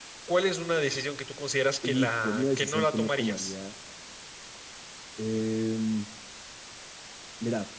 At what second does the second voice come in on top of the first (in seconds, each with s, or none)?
1.8 s